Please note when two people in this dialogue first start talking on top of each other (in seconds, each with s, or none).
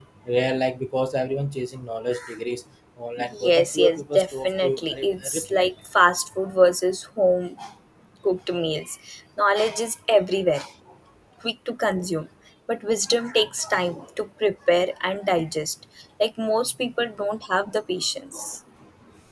3.2 s